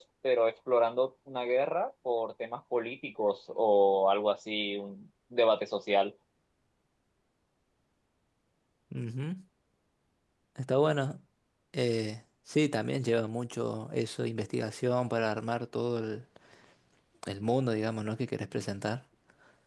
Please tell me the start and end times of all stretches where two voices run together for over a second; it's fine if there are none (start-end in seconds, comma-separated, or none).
none